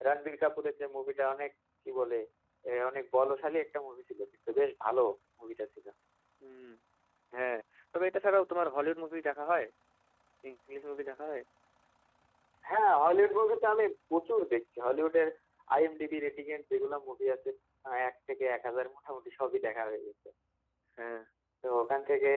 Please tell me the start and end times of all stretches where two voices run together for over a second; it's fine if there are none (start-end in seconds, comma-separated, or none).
none